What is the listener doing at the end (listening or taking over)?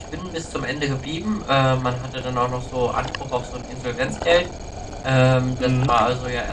listening